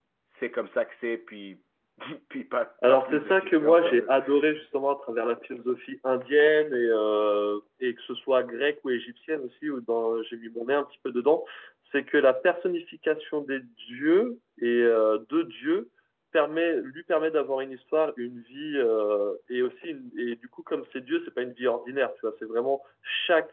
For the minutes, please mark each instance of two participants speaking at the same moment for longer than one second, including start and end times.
2.9-4.1

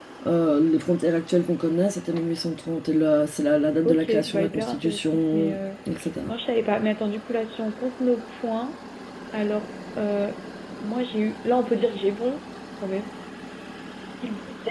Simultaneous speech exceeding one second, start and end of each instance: 3.8-5.6

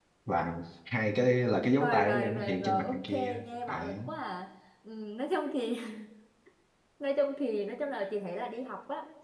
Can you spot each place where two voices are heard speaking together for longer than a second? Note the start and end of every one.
1.8-4.1

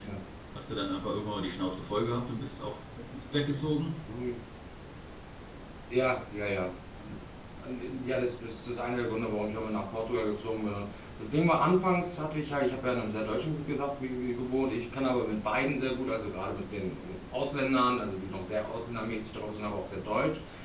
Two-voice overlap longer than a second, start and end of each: none

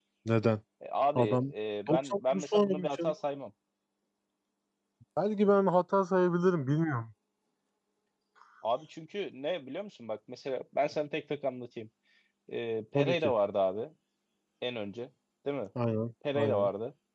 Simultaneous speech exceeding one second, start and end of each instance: 1.9-3.1

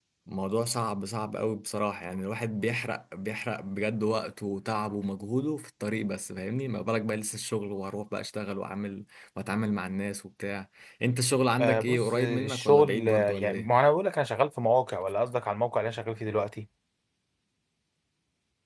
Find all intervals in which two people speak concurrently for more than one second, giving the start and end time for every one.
11.6-13.7

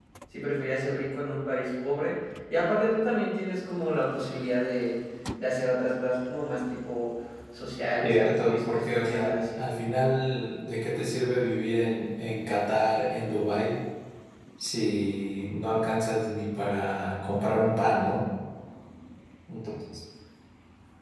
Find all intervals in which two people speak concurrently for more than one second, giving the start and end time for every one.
8.0-9.6

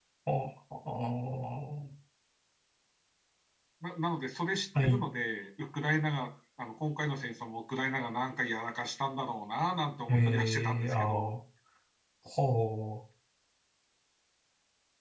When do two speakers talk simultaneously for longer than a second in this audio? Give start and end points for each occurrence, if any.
10.1-11.3

